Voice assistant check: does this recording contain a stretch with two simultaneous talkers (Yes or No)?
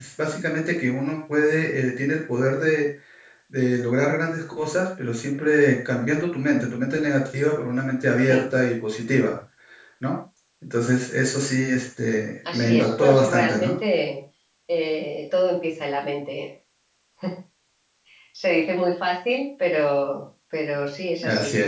Yes